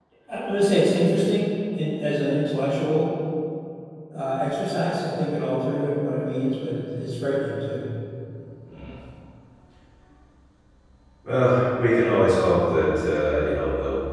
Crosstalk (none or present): none